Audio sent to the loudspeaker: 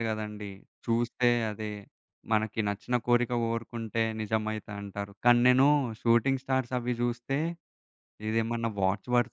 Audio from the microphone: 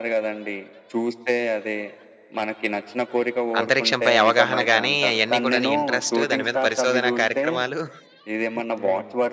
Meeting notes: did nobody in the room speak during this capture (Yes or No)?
No